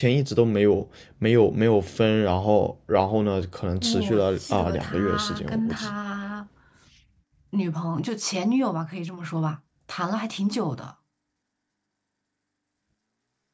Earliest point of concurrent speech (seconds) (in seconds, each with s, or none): 3.8 s